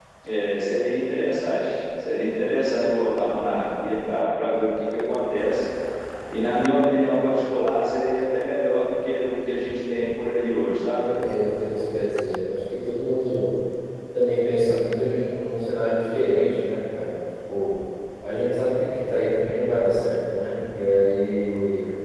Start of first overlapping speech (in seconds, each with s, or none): none